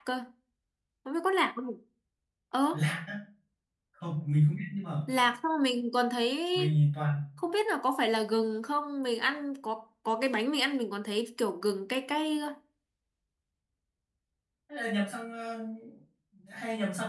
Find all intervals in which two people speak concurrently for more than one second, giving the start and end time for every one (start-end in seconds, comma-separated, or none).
none